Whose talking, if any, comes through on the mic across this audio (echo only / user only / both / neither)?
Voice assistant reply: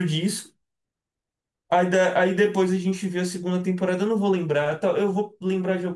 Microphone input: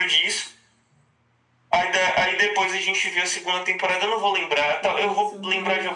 both